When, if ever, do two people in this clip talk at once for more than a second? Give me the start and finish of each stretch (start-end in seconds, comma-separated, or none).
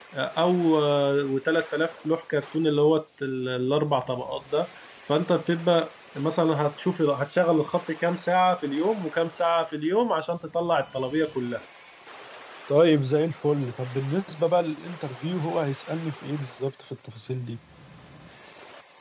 none